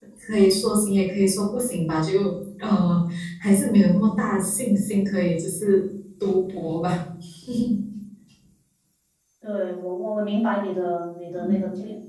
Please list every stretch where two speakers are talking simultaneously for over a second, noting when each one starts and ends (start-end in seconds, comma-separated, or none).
none